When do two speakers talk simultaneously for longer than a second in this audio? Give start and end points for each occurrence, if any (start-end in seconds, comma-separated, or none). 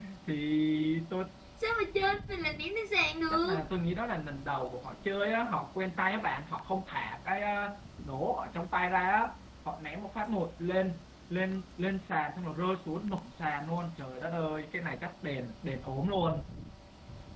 none